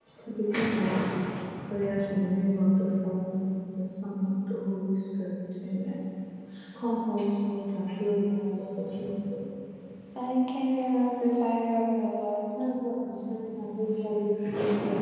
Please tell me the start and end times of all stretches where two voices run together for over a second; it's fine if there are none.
none

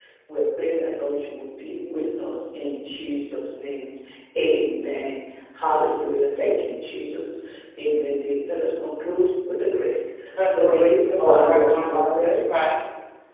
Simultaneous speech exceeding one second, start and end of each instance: 10.5-12.6

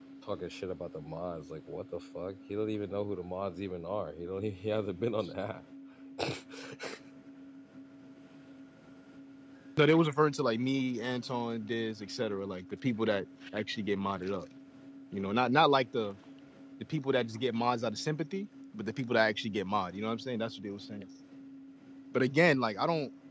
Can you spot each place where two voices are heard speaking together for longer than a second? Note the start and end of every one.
none

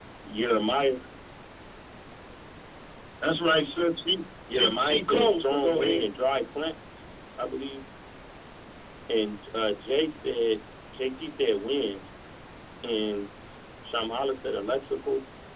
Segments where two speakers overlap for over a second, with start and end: 4.5-6.0

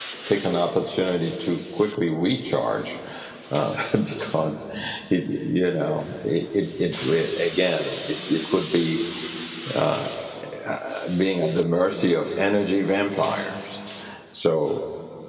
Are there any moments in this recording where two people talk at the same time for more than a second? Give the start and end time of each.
none

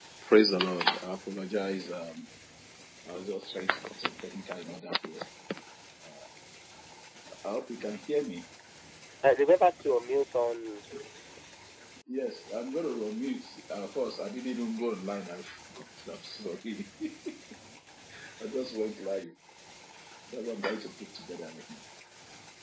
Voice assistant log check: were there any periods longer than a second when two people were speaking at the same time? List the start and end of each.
none

